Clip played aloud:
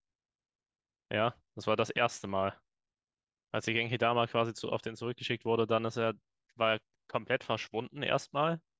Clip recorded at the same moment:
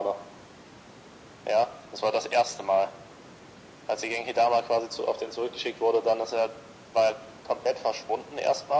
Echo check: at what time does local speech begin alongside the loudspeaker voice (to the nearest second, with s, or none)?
none